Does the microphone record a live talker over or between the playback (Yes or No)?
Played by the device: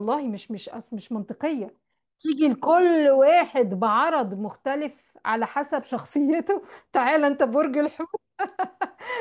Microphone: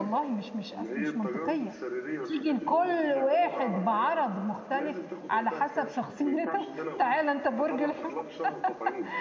Yes